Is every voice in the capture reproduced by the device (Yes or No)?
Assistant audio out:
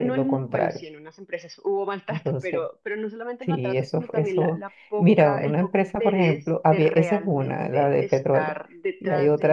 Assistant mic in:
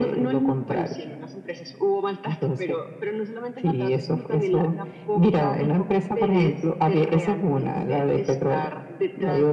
Yes